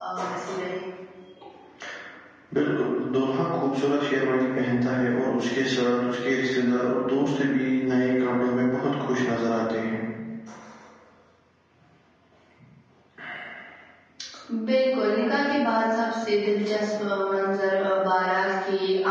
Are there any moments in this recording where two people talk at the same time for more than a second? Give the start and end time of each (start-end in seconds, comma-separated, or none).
none